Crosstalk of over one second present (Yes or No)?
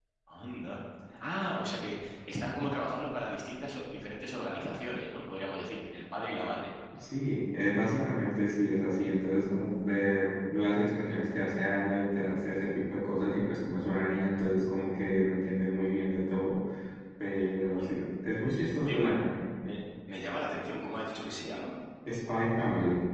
No